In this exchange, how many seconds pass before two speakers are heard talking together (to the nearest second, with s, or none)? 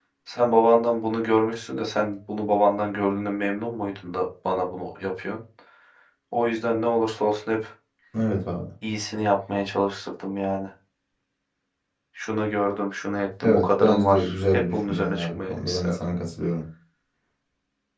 13 s